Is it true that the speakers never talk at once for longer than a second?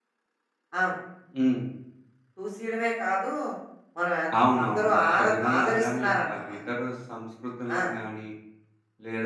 No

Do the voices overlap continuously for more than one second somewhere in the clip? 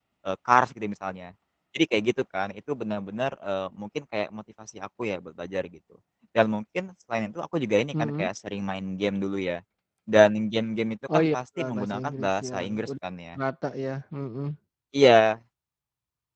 Yes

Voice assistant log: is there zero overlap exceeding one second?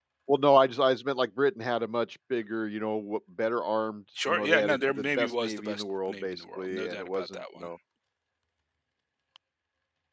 No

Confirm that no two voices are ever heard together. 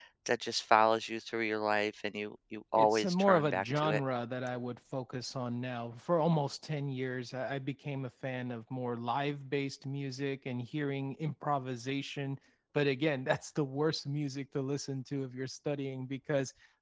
No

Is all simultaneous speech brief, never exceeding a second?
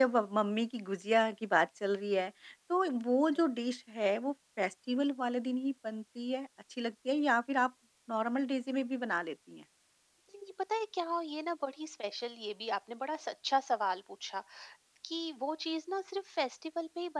Yes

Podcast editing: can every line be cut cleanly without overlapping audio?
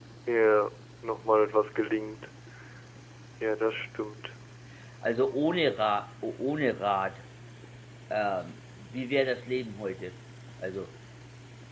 Yes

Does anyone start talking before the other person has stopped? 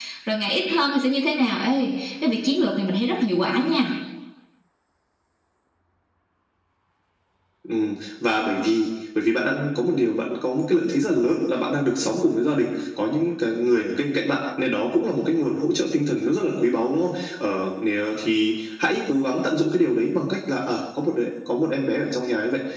No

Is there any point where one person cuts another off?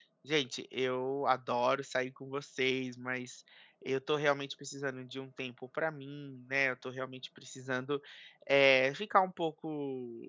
No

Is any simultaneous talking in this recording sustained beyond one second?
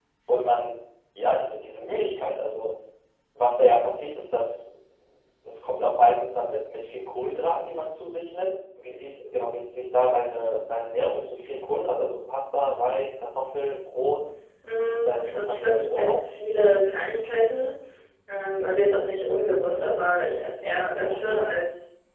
Yes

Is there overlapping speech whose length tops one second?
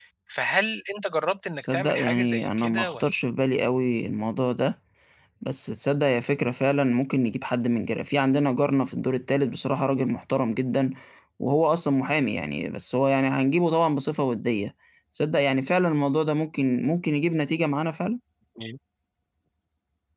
Yes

